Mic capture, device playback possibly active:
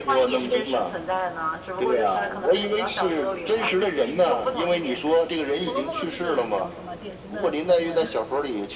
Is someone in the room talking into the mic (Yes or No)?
Yes